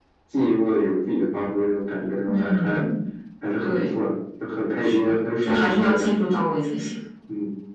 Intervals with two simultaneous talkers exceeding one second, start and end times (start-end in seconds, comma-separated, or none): 4.8-6.2